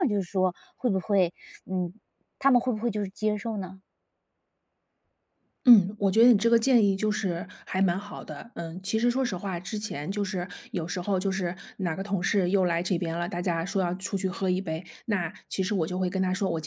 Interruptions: none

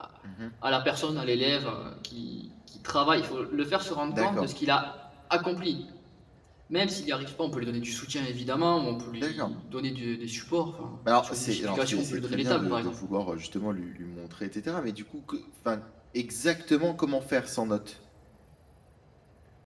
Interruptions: present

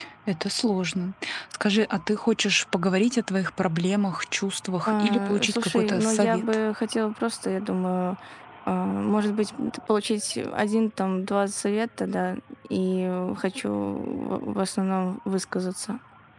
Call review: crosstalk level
present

